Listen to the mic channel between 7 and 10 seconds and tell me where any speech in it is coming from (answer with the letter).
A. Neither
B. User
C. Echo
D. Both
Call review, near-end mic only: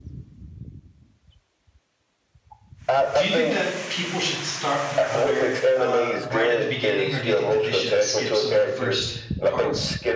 D